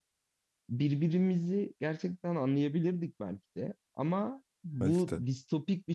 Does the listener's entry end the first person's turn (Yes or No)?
No